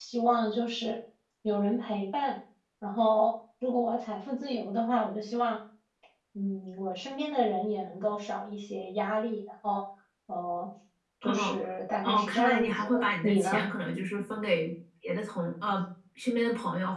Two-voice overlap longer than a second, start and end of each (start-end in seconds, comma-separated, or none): 12.0-13.7